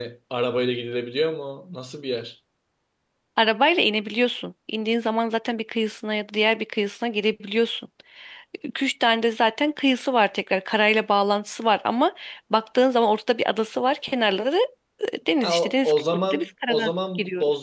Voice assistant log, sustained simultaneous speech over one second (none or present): present